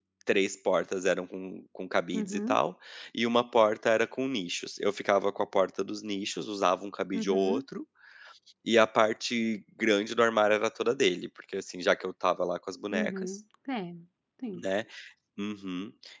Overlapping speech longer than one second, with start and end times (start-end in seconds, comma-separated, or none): none